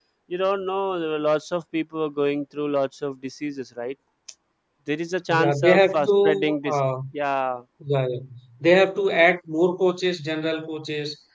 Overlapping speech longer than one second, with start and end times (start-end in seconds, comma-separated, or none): 5.3-6.8